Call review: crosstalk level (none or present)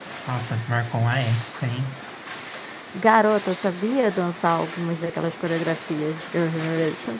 none